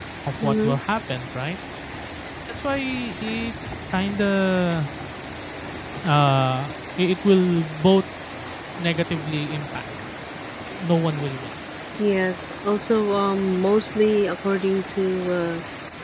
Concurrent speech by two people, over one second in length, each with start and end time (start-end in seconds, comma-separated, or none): none